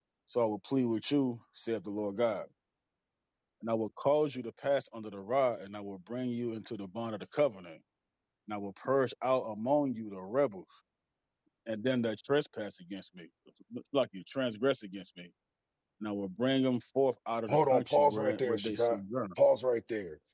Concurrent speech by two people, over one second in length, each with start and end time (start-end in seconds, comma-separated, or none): 17.5-19.0